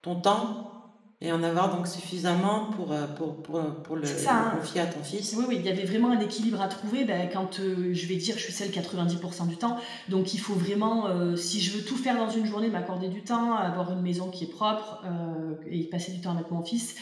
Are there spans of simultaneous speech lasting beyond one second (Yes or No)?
No